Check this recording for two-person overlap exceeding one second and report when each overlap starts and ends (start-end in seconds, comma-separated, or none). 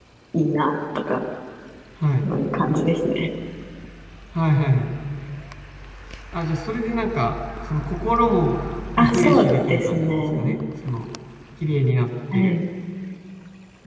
9.0-10.5